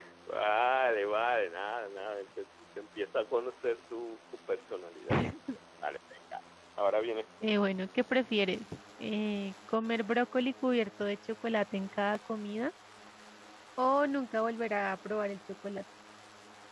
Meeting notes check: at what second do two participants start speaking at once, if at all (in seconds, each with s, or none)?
none